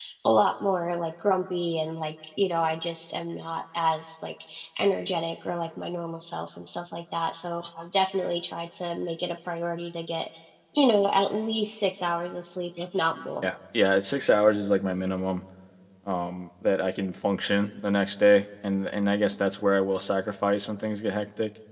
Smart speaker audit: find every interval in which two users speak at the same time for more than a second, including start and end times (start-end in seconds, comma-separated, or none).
none